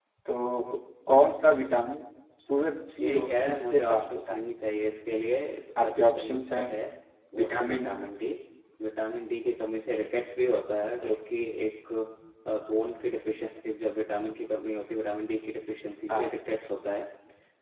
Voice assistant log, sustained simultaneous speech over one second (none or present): present